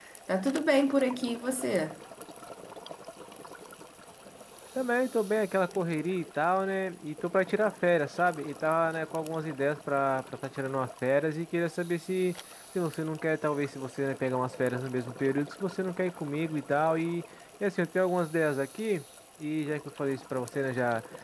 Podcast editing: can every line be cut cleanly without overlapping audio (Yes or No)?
Yes